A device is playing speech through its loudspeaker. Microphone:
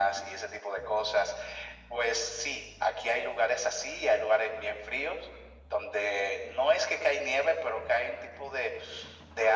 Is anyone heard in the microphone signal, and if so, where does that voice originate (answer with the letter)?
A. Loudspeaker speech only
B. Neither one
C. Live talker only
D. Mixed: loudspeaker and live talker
A